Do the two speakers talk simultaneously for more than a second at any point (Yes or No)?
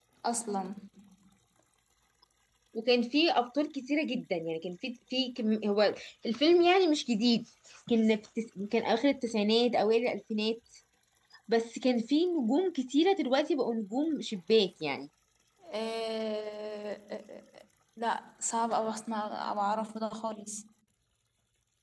No